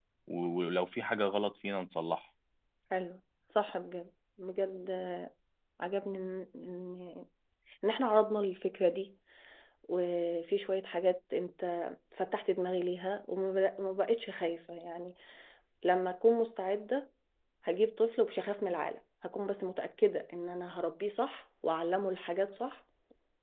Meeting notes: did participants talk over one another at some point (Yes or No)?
No